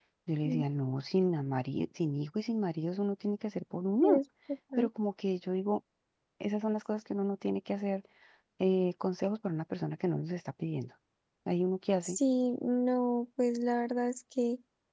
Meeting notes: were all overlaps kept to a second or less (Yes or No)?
Yes